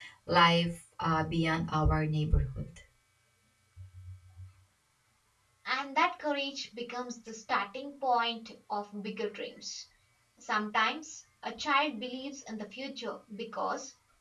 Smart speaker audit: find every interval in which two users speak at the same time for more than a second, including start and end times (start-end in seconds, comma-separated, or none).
none